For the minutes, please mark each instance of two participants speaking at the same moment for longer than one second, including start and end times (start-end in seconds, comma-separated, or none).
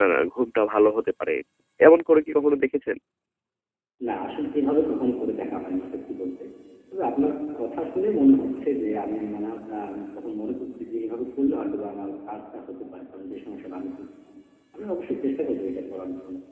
none